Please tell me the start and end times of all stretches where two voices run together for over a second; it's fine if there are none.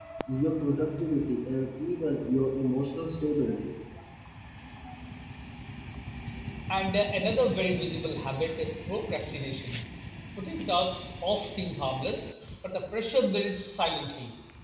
none

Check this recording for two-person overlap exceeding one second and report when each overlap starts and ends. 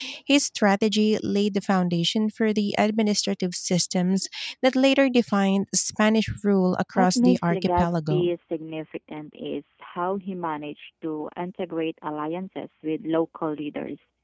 7.0-8.3

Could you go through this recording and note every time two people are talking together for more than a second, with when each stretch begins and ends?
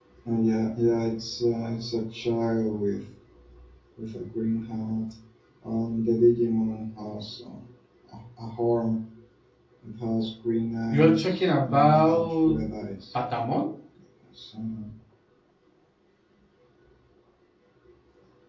10.9-12.6

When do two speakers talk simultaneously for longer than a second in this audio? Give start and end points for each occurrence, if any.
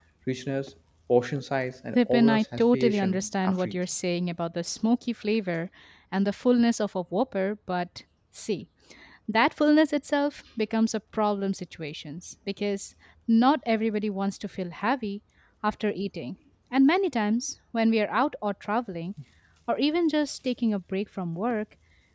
1.9-3.8

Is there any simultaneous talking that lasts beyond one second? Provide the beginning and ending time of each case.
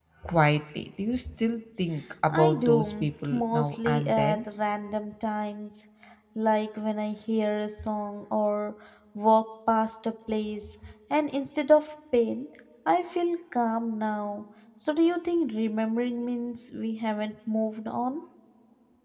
2.3-4.4

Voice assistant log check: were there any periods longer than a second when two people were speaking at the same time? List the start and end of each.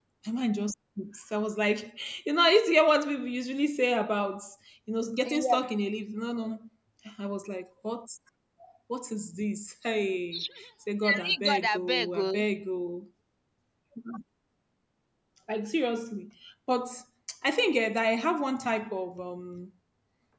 11.0-12.3

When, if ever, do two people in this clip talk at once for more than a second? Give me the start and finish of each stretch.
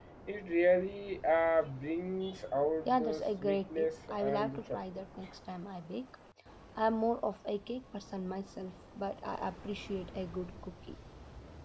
2.9-4.8

